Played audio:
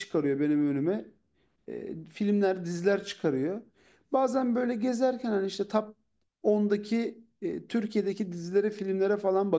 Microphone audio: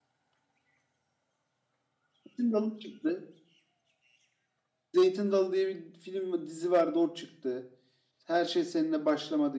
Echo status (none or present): none